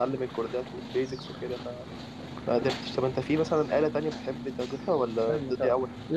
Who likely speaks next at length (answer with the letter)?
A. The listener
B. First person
A